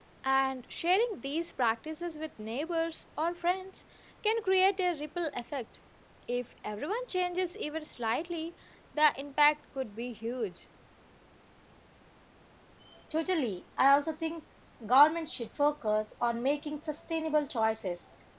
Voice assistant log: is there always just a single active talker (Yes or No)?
Yes